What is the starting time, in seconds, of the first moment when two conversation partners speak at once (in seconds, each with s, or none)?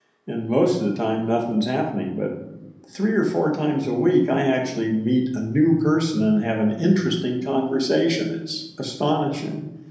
none